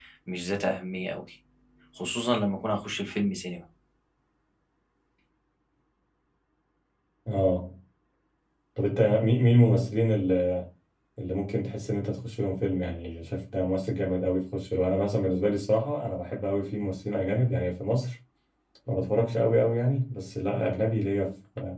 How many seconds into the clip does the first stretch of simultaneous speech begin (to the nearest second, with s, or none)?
none